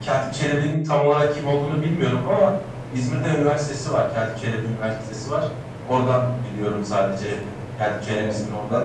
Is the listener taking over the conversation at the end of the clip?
Yes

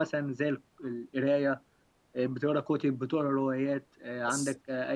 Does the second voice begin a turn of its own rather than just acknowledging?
No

